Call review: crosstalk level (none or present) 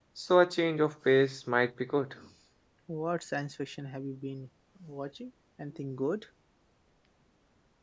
none